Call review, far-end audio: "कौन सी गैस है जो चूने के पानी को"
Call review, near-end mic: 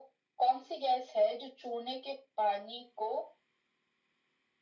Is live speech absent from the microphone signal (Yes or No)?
Yes